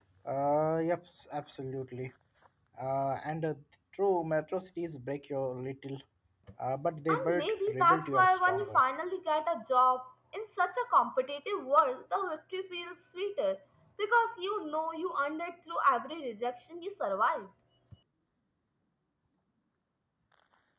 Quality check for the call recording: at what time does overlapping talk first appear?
7 s

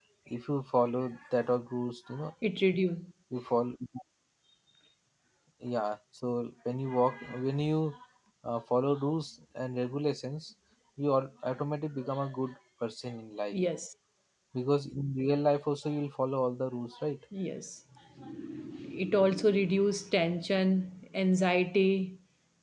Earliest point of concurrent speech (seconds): none

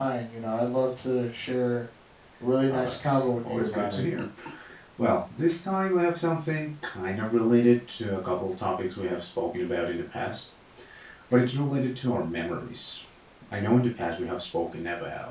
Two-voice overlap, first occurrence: 3 s

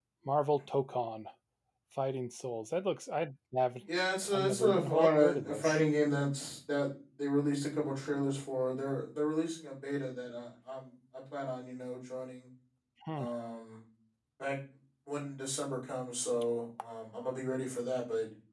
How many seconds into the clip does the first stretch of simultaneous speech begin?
4 s

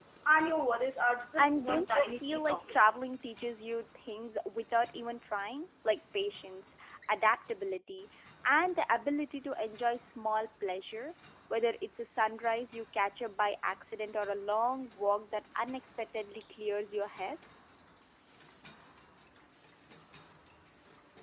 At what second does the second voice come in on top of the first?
1 s

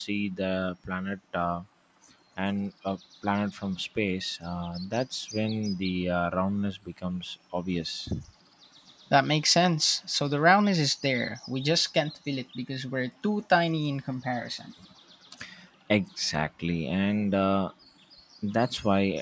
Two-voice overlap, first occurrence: none

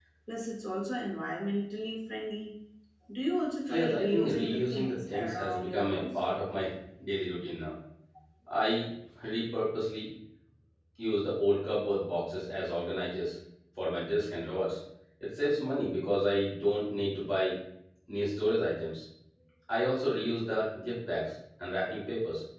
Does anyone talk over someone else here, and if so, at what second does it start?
4 s

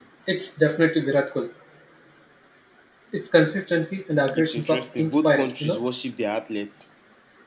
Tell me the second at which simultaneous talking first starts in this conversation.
4 s

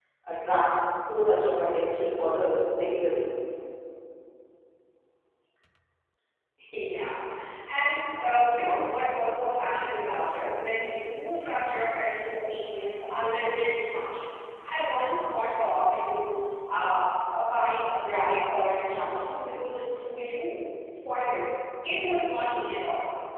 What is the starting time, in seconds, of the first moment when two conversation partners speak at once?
none

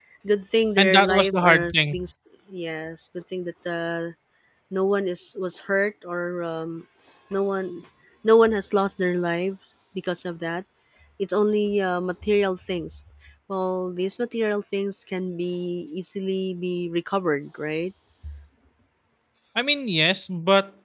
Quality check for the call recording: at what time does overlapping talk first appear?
1 s

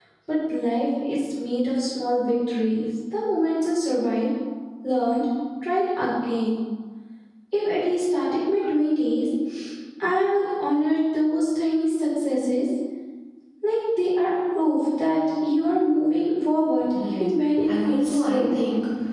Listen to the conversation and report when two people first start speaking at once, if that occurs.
17 s

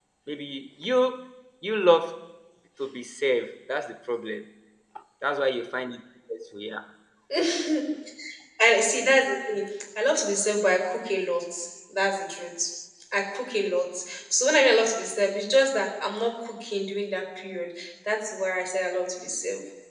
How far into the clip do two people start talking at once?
none

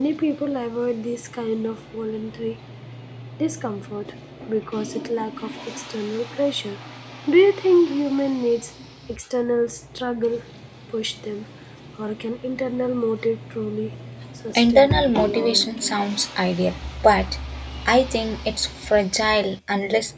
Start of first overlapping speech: 15 s

